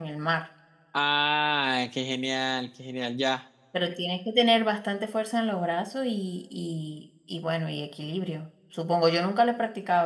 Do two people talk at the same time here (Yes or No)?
No